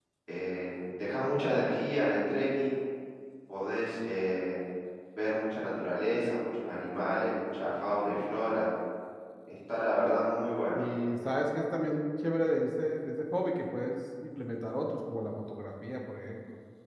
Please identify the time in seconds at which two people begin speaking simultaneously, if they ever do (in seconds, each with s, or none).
none